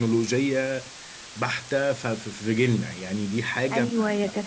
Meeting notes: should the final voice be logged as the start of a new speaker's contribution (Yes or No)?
Yes